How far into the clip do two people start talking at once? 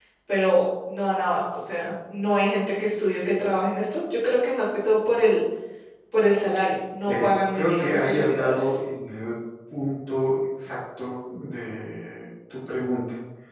7 s

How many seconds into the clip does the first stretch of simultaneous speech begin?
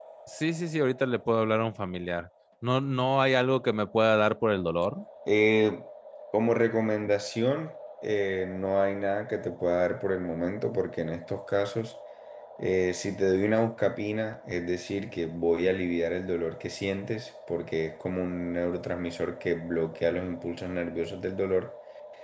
none

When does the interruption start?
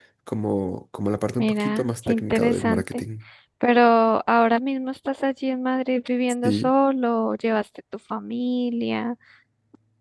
1 s

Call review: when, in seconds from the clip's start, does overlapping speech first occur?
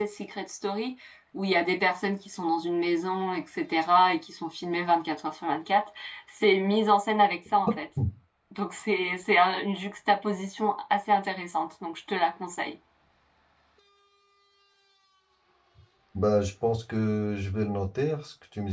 none

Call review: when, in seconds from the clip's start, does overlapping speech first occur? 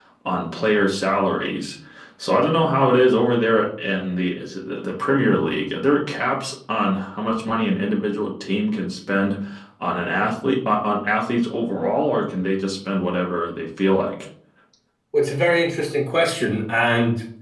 none

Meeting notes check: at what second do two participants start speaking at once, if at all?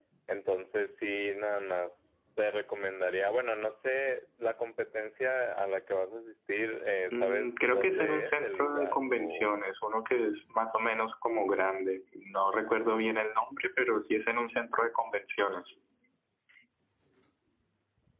7 s

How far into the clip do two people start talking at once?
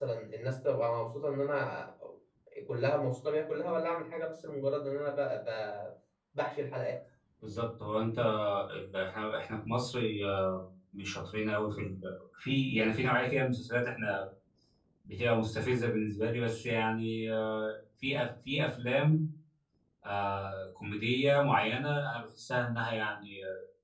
none

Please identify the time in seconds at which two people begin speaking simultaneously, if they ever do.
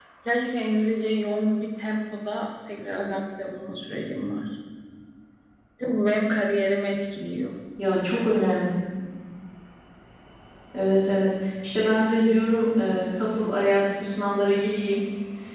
none

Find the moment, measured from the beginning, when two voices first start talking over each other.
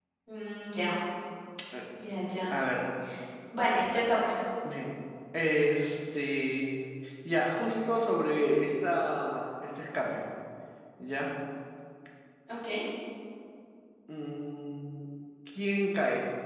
none

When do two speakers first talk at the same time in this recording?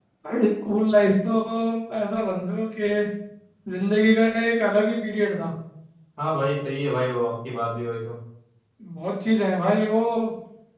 none

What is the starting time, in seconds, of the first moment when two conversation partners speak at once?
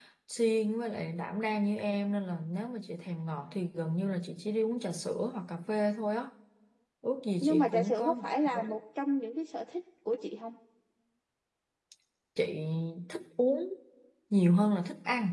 7 s

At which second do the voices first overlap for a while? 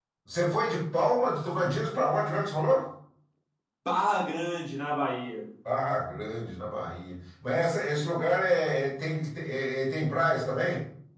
none

